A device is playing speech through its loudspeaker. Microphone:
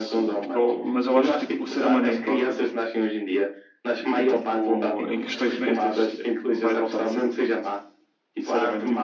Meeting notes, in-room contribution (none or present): present